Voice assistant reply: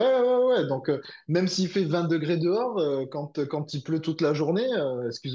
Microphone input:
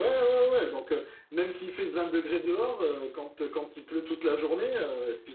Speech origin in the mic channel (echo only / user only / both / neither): echo only